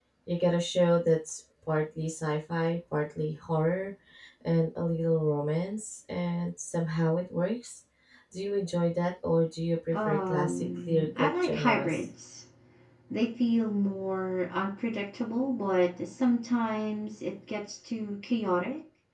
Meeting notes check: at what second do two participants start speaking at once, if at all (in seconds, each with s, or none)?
9.9 s